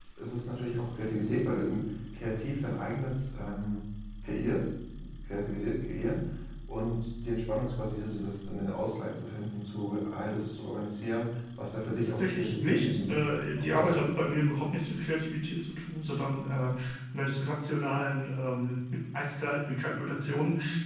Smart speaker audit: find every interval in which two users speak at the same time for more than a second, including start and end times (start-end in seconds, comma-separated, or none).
12.1-13.3